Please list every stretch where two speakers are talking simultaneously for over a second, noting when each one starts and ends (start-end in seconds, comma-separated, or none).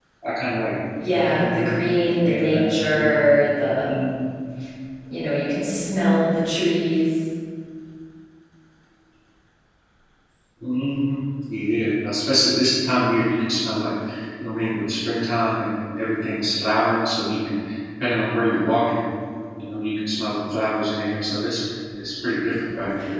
1.2-3.2